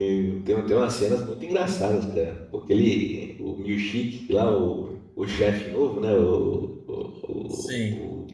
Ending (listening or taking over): listening